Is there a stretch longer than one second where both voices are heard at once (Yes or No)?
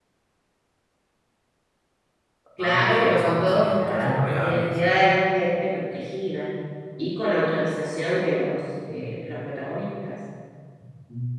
Yes